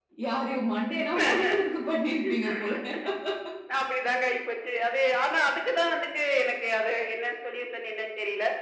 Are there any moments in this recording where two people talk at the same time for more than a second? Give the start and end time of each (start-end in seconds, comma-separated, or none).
none